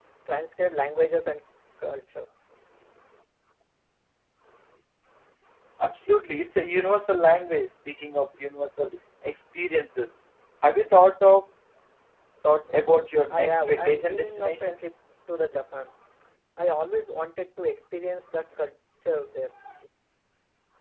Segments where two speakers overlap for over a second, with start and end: 13.3-14.7

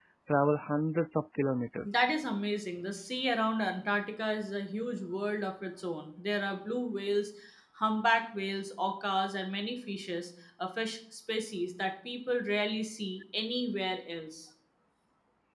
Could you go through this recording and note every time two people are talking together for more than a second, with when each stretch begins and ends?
none

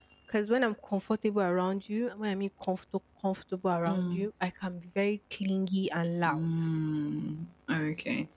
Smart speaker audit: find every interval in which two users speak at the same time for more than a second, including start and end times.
none

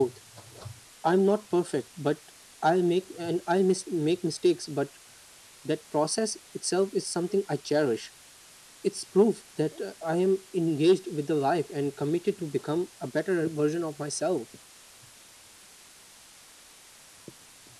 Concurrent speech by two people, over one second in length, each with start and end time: none

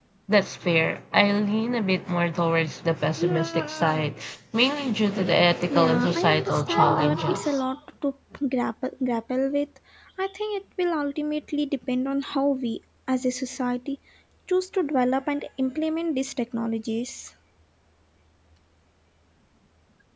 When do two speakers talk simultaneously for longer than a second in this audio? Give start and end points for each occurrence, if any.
5.7-7.6

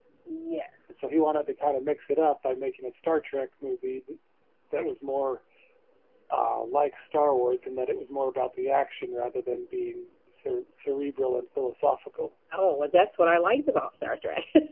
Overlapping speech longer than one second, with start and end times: none

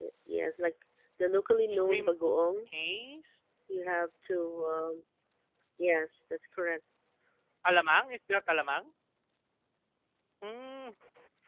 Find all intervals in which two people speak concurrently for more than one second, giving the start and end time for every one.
none

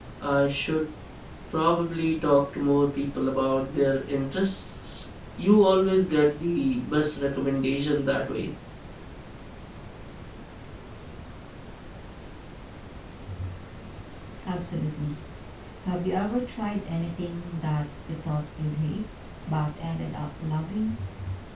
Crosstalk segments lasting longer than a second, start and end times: none

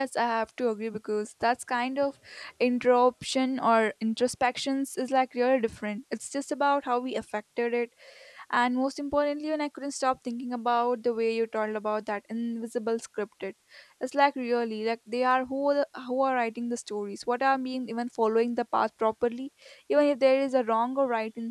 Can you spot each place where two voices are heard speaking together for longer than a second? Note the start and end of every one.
none

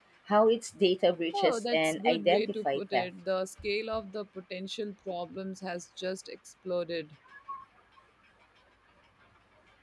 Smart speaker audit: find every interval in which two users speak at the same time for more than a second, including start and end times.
1.3-3.1

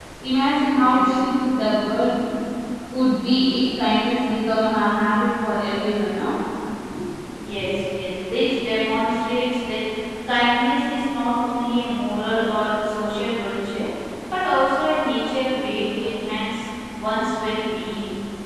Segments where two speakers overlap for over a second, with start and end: none

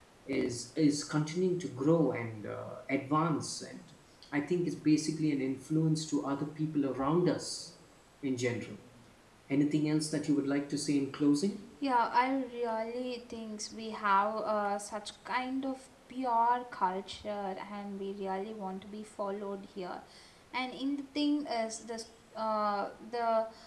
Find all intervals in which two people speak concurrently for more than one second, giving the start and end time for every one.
none

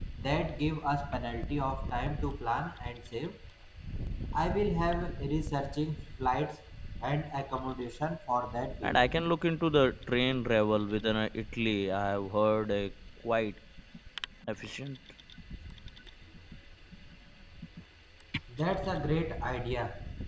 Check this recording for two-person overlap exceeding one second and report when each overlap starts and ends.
none

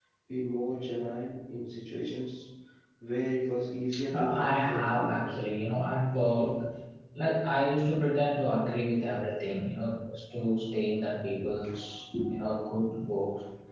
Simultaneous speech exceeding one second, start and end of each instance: 4.1-5.4

